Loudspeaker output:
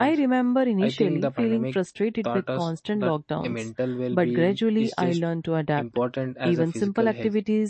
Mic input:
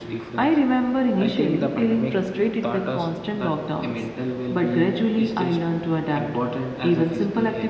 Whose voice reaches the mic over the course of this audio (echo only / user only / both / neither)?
echo only